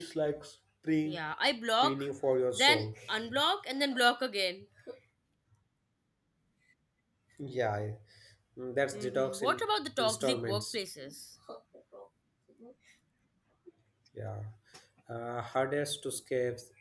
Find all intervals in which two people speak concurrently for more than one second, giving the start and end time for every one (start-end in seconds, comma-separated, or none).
8.9-10.8